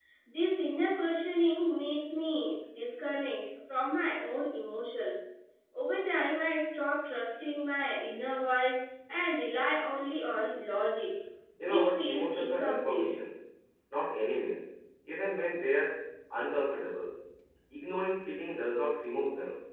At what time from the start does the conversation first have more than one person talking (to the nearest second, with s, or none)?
12 s